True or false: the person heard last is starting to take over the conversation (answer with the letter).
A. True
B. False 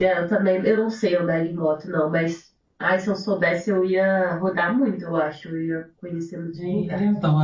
A